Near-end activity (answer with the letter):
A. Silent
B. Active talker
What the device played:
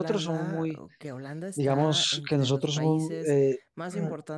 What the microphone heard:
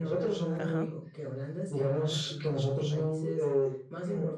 B